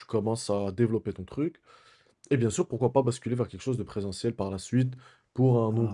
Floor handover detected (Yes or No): No